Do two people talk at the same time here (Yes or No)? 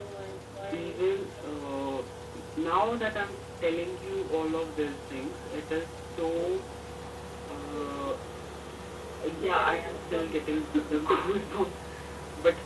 Yes